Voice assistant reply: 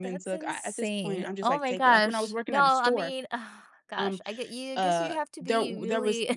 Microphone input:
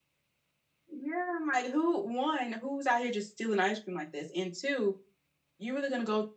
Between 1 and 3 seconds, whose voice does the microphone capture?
user only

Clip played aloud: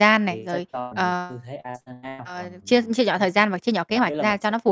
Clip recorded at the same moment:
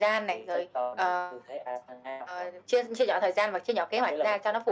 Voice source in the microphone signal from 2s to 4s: echo only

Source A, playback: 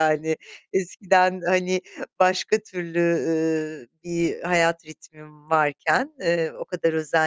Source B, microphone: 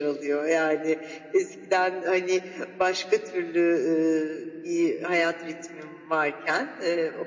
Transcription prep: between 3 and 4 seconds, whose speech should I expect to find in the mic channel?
echo only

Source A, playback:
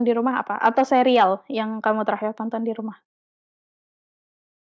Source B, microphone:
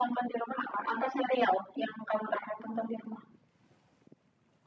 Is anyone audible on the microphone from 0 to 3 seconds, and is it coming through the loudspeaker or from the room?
echo only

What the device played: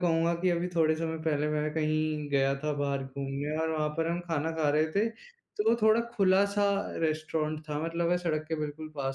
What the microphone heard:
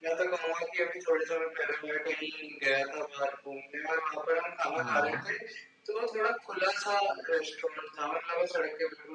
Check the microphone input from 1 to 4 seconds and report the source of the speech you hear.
echo only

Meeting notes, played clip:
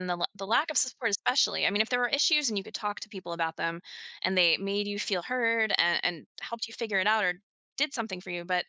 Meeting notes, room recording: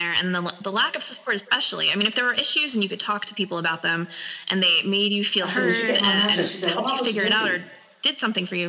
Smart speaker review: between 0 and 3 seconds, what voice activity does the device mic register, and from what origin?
echo only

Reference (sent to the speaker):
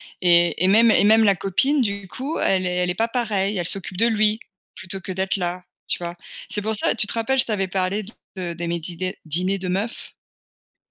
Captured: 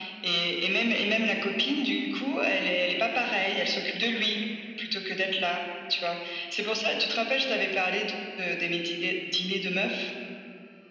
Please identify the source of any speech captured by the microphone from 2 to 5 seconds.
echo only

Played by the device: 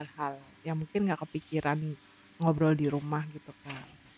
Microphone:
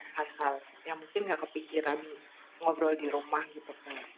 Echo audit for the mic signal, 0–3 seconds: echo only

